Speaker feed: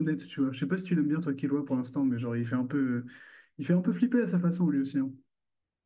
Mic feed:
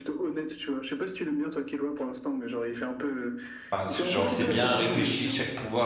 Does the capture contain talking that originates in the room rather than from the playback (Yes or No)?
Yes